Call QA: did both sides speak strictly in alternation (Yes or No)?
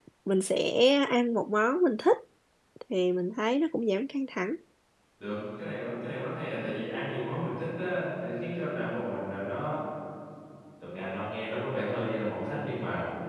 Yes